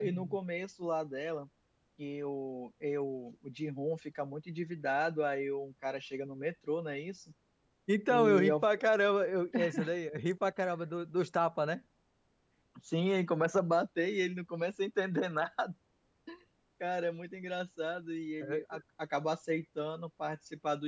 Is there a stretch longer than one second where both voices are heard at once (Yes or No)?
No